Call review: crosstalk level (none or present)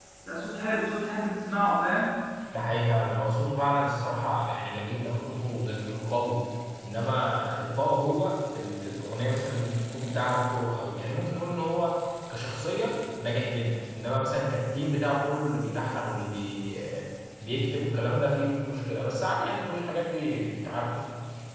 none